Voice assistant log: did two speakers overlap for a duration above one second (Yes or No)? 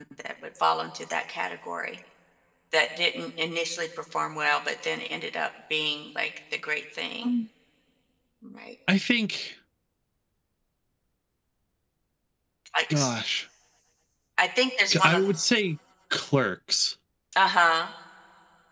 No